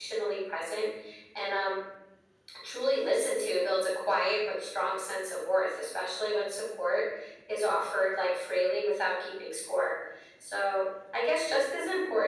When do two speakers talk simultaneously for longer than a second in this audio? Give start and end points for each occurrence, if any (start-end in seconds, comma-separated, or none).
none